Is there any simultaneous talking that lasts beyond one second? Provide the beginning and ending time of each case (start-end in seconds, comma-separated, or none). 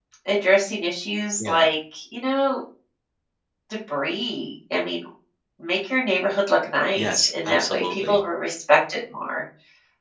7.0-8.2